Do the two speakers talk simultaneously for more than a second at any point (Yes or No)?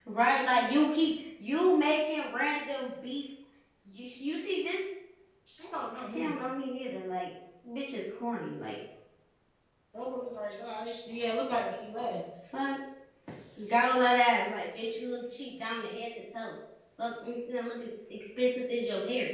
No